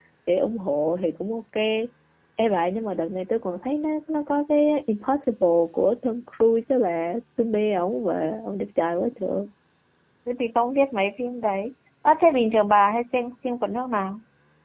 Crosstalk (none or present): none